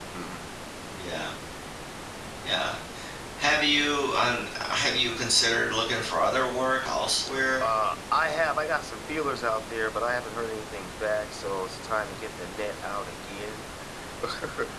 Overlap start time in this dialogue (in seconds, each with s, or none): none